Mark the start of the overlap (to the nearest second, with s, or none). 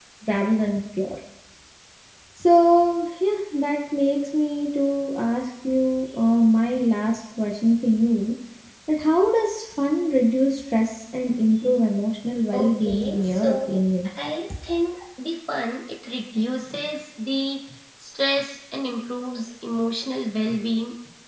13 s